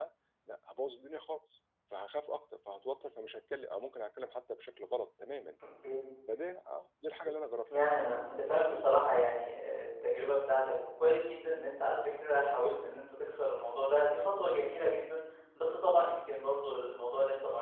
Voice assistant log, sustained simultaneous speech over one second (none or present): none